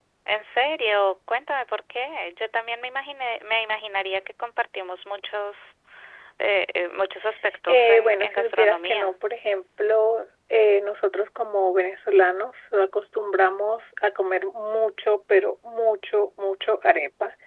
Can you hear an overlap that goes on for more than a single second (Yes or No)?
Yes